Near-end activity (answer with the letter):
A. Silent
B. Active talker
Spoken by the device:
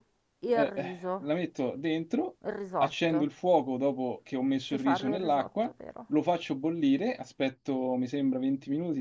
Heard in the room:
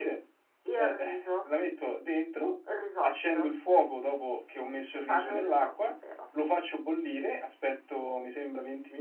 A